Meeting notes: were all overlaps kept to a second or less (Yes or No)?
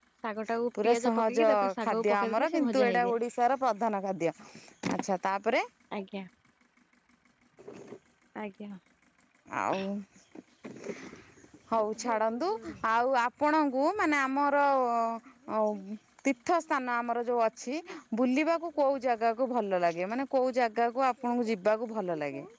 No